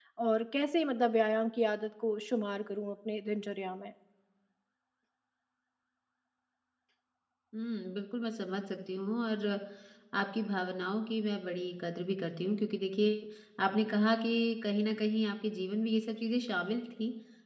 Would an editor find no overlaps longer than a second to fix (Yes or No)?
Yes